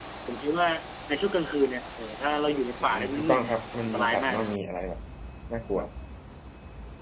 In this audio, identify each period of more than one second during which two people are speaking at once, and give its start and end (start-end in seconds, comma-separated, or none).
2.8-4.5